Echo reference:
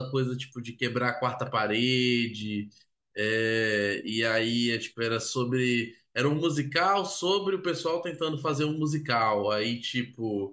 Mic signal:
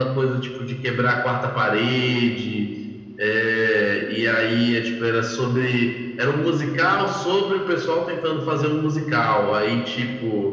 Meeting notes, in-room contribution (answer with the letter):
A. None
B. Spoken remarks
A